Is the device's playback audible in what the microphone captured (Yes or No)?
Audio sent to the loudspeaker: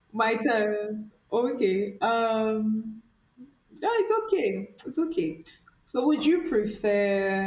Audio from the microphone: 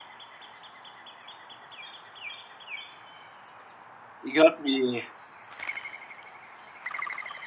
No